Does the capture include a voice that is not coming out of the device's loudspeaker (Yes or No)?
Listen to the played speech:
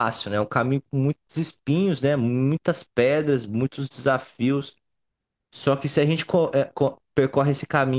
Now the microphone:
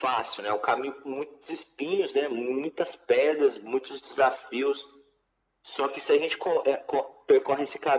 No